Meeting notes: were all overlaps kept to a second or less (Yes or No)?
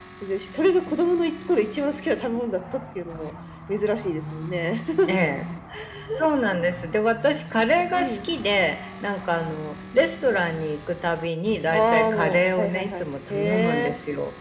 No